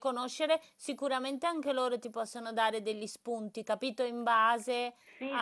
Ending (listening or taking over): taking over